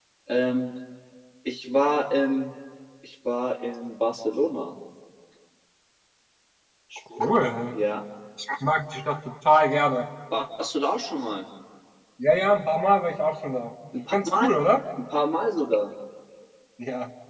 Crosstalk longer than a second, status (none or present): none